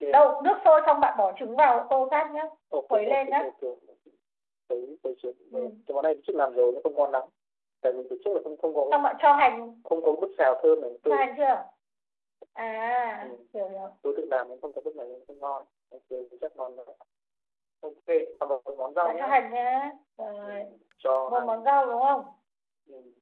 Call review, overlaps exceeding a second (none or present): none